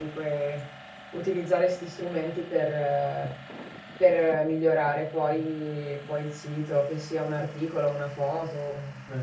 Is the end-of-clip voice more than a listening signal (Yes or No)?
Yes